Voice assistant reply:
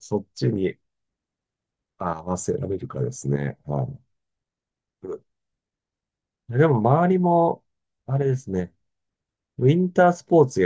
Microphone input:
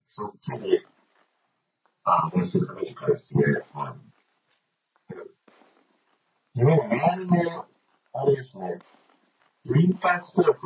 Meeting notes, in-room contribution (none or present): none